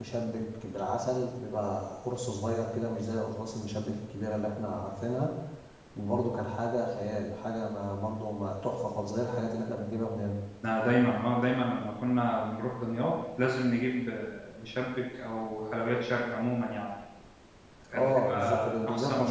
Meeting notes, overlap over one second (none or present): present